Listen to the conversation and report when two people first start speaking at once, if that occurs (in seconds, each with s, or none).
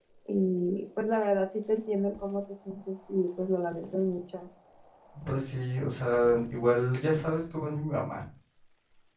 none